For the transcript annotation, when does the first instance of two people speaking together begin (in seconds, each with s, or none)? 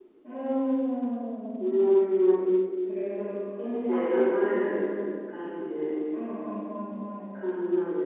none